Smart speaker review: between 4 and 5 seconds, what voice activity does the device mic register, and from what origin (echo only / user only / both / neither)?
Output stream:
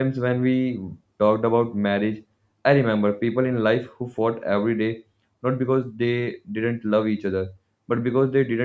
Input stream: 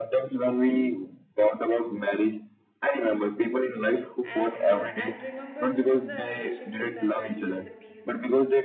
both